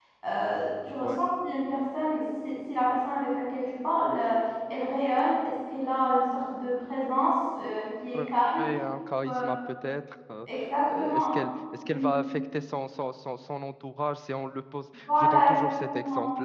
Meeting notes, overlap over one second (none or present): present